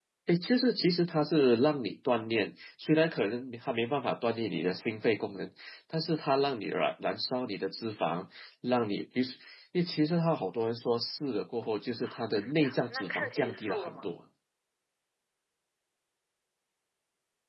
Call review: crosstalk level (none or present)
present